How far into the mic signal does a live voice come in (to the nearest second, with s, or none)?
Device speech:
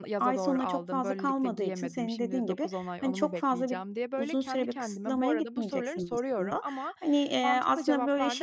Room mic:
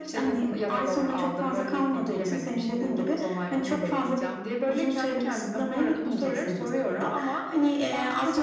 none